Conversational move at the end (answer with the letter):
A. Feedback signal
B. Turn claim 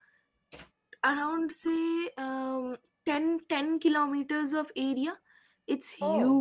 A